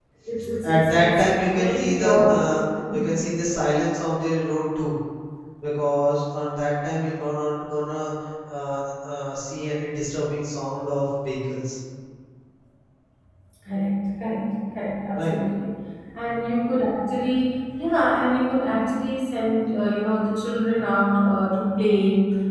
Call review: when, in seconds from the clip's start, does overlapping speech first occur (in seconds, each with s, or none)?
0.6 s